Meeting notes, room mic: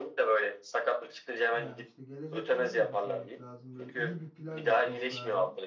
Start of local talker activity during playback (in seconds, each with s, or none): 1.5 s